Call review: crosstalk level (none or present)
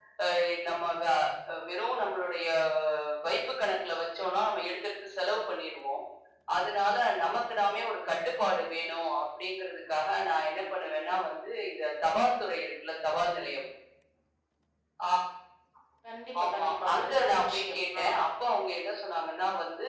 present